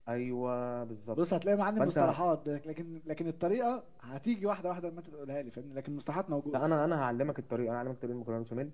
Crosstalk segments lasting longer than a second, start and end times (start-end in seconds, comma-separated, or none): none